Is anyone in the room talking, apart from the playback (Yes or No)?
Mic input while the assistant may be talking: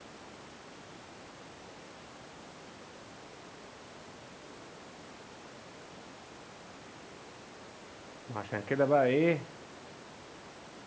Yes